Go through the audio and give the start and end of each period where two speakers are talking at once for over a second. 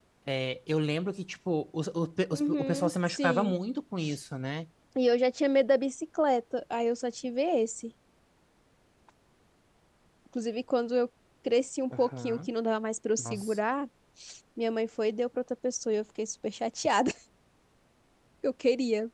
2.3-3.6

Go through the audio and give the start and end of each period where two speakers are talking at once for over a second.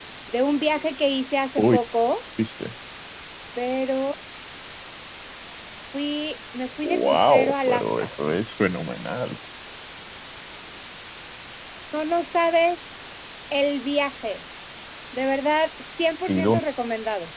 6.8-8.1

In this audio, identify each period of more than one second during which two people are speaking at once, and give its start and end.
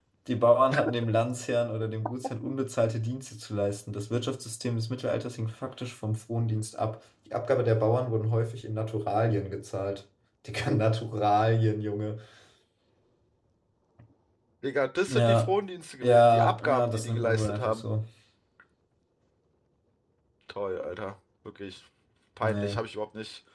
16.0-17.8

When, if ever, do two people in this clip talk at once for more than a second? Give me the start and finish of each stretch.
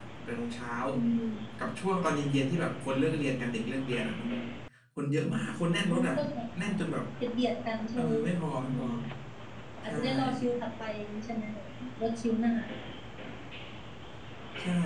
none

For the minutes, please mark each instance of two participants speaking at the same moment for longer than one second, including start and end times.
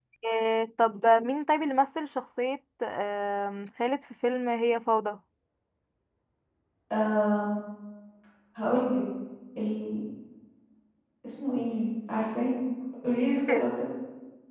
none

